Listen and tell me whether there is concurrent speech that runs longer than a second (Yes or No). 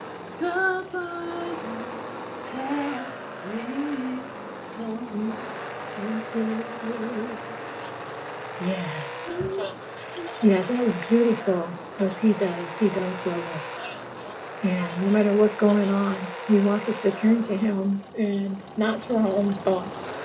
No